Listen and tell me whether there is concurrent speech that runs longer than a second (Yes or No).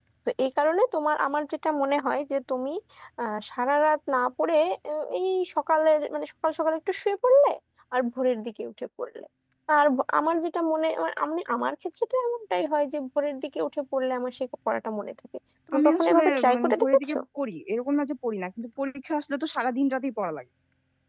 Yes